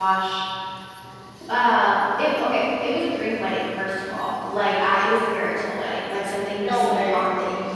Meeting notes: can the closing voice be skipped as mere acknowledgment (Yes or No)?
Yes